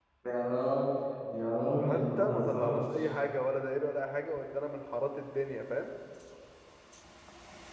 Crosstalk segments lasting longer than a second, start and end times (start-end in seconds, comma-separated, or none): 1.8-3.1